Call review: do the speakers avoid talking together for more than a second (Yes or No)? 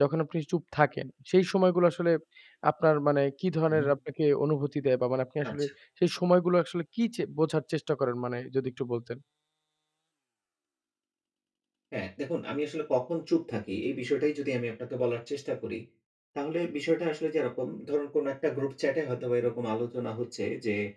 Yes